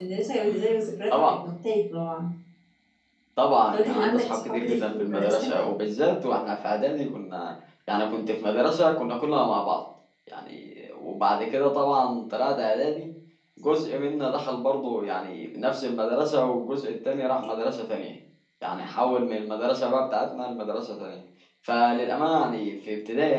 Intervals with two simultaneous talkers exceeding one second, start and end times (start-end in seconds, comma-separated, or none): 3.7-5.5